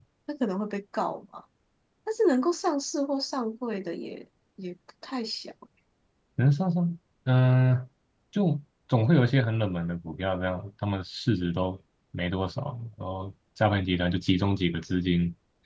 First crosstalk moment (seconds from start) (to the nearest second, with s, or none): none